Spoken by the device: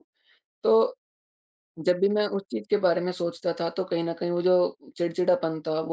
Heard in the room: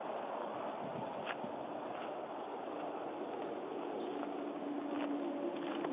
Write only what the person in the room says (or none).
none